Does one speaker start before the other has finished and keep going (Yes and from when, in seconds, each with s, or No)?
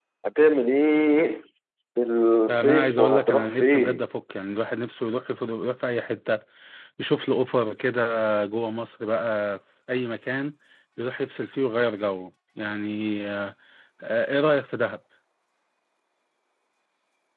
Yes, from 2.5 s